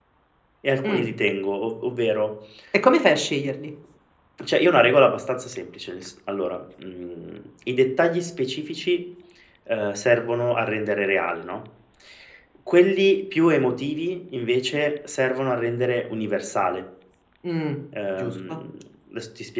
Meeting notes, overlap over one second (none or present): none